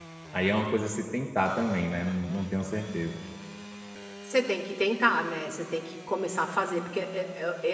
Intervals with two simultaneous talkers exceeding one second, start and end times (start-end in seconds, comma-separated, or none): none